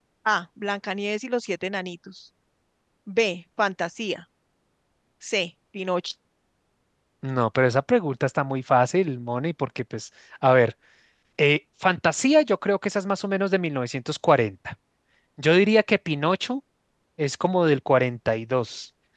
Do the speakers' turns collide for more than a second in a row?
No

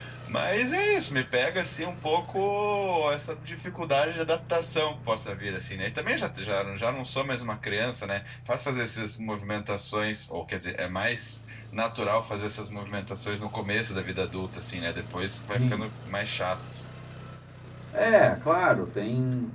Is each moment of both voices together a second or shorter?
Yes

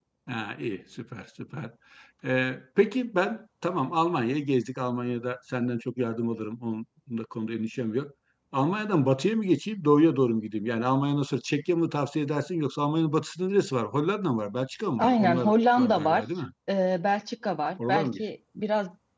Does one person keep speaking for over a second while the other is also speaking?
Yes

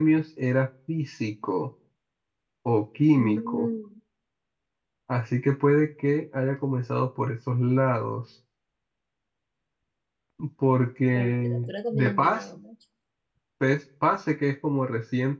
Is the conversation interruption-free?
No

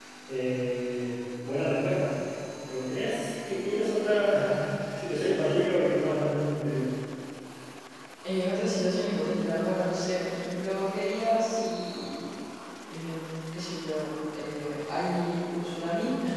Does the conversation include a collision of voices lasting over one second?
No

